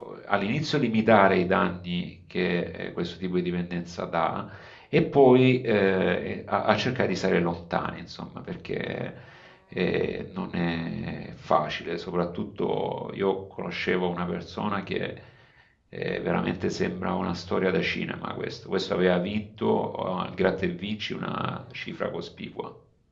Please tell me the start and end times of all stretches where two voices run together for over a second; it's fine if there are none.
none

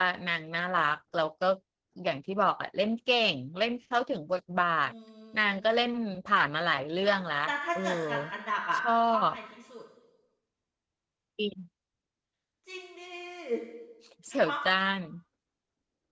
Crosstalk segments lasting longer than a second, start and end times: none

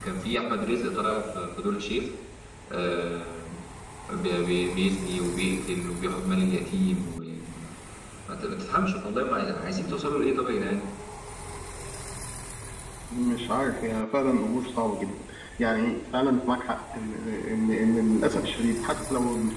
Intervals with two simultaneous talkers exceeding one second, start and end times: none

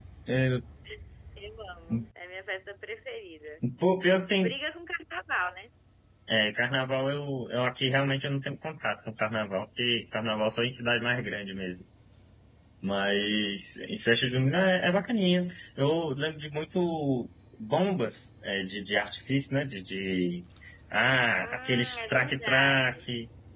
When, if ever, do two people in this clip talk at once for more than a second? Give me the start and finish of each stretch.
21.4-23.0

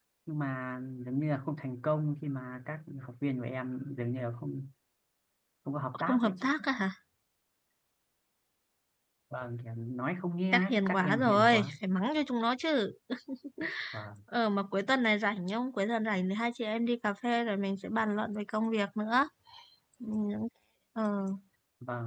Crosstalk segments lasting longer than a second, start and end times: 10.5-11.7

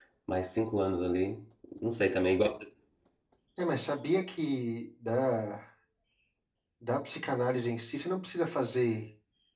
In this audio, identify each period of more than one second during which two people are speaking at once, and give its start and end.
none

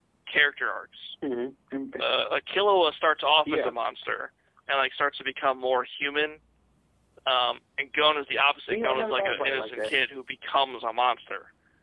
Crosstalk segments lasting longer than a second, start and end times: 8.7-9.9

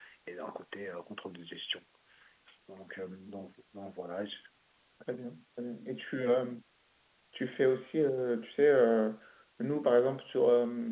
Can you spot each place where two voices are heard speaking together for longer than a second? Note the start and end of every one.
none

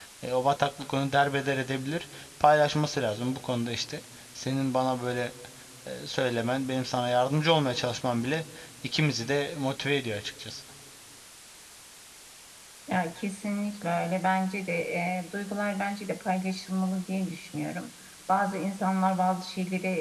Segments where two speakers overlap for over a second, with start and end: none

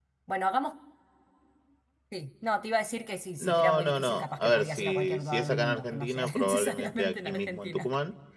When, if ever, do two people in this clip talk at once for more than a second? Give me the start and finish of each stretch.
3.4-7.9

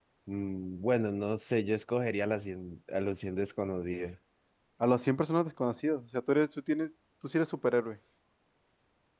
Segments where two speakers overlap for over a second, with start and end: none

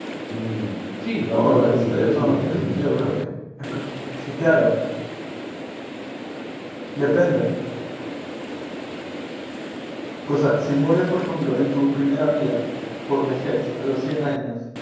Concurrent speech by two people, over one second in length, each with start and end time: 1.3-3.3

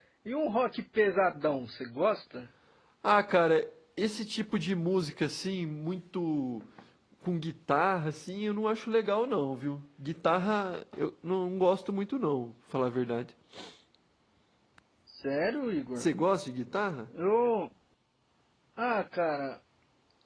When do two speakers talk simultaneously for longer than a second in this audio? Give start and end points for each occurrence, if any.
none

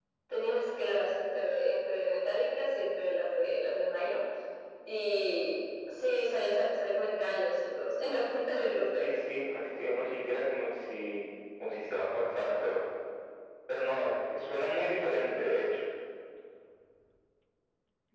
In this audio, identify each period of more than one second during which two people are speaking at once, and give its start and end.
none

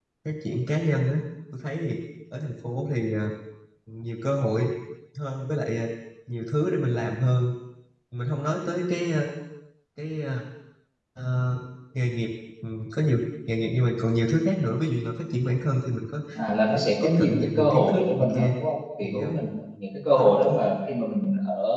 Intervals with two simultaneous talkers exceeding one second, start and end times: 16.7-18.5

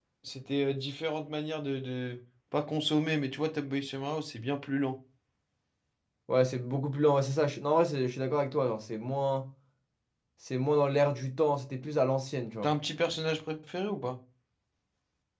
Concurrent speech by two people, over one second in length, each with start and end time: none

